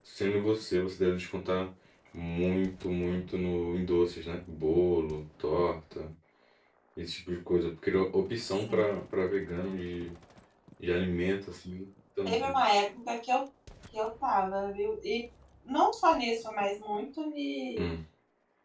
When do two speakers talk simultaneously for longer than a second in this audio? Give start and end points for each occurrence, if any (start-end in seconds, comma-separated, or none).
none